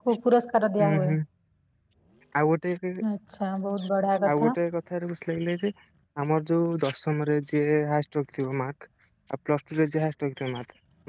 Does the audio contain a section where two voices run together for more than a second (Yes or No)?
No